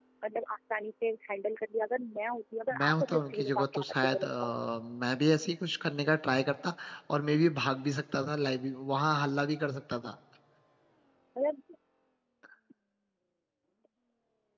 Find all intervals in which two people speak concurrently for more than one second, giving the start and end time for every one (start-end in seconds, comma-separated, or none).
2.8-4.5